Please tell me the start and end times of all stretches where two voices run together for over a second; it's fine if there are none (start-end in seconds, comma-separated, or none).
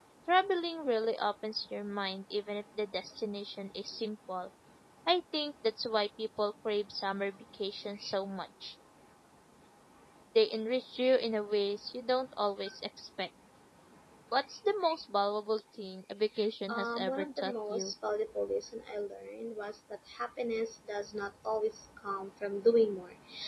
16.7-17.9